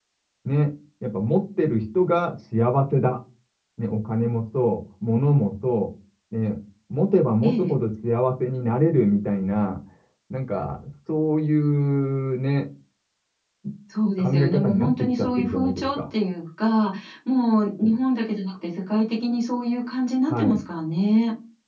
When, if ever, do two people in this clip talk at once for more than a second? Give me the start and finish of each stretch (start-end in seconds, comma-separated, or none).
14.2-16.0